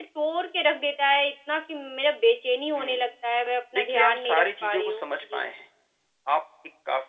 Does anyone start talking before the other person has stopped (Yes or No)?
Yes